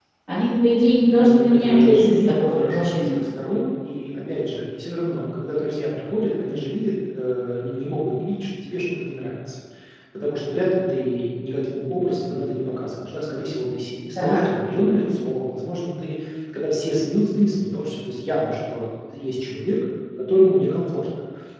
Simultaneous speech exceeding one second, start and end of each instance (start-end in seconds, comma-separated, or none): 1.1-3.2